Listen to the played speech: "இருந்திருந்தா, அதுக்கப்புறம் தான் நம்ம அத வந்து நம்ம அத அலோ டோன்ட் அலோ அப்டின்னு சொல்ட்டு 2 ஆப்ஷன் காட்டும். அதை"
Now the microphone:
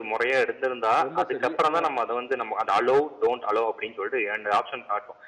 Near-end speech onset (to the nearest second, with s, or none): 1 s